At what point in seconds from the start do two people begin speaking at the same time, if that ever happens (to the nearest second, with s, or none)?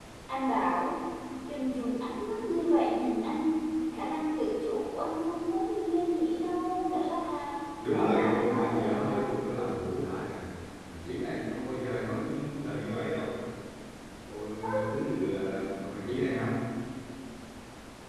8 s